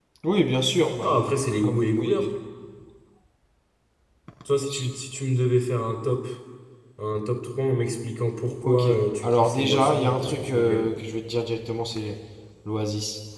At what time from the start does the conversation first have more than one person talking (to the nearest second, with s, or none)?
1 s